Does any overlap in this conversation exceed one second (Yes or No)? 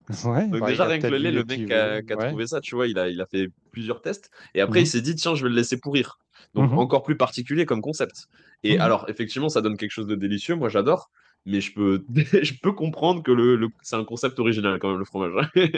Yes